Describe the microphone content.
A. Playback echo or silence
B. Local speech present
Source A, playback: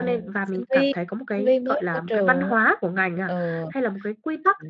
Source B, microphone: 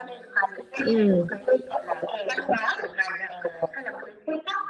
B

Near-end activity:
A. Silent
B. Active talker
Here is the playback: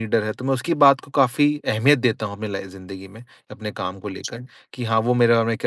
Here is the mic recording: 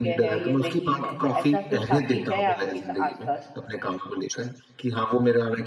B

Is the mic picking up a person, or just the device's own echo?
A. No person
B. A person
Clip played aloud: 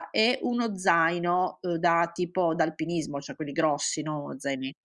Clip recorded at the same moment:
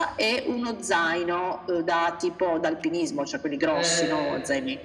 B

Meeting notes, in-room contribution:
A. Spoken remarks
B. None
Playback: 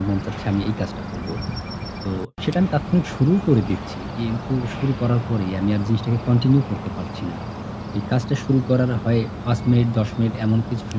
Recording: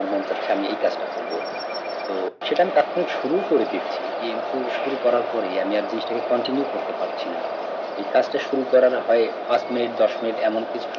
B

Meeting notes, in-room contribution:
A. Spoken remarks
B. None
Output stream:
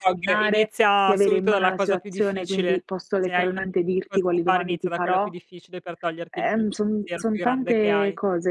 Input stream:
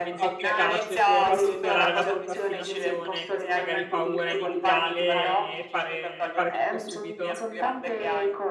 A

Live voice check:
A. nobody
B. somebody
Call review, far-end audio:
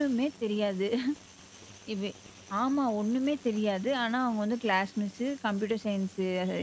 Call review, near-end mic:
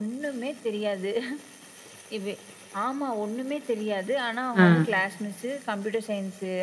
B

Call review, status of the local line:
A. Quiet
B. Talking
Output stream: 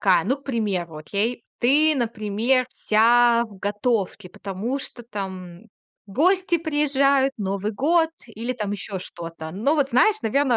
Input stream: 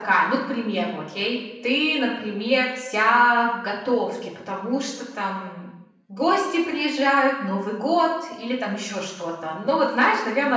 A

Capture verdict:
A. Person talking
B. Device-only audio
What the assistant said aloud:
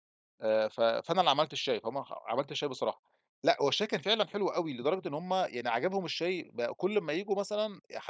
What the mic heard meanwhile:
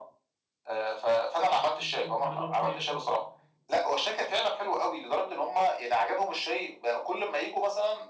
A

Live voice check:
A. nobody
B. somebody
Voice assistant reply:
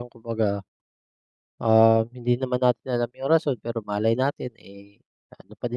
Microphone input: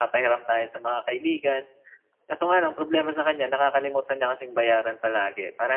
B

